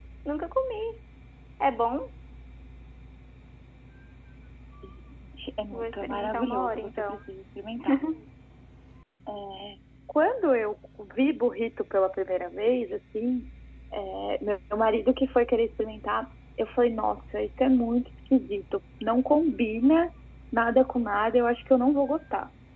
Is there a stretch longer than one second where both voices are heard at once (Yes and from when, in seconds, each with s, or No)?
Yes, from 5.7 s